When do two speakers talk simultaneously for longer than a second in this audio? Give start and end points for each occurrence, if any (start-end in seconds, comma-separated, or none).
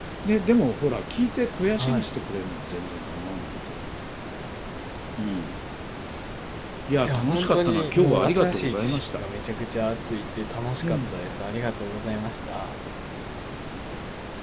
7.0-9.2